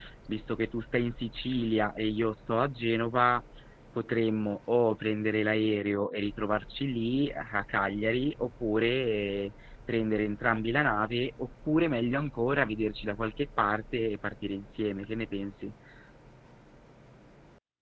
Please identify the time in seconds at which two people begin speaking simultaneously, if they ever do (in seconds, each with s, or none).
none